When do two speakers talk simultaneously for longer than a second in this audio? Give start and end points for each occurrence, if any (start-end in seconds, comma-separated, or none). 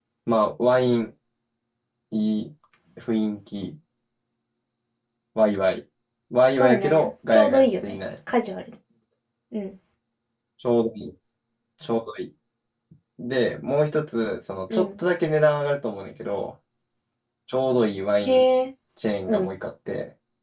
6.6-8.0